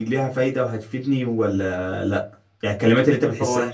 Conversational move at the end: listening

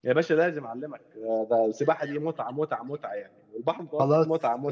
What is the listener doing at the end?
taking over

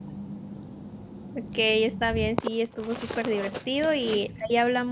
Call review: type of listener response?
listening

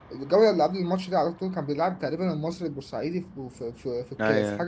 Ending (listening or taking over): listening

